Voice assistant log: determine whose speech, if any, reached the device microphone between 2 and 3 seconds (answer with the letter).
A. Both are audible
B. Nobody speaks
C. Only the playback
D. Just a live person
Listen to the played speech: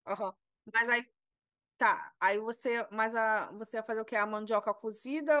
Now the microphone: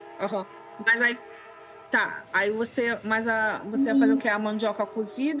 C